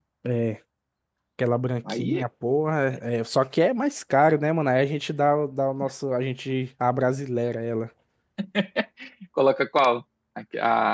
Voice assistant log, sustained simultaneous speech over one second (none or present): none